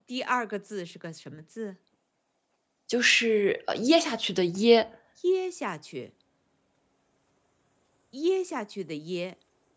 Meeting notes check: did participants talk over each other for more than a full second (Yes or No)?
No